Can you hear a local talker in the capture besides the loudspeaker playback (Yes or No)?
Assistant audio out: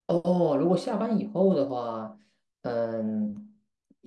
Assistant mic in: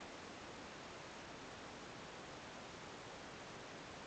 No